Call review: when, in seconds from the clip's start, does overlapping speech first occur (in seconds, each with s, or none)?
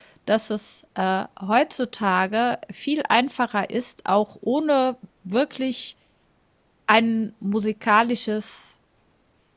none